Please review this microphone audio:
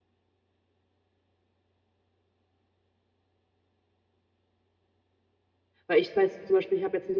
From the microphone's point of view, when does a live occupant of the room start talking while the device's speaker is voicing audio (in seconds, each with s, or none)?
5.9 s